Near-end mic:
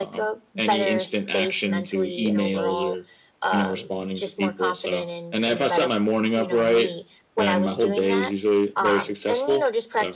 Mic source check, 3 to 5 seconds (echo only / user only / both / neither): both